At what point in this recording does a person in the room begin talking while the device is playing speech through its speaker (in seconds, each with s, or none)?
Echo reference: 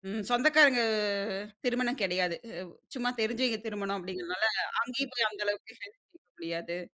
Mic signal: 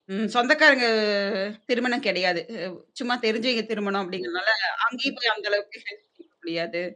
none